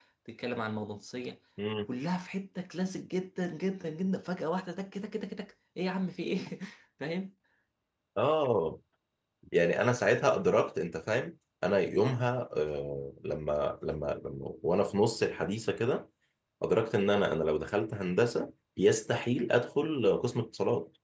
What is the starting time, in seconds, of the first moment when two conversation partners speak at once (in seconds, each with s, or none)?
none